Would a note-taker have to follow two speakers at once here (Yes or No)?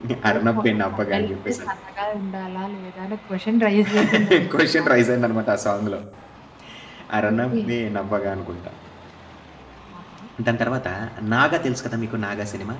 Yes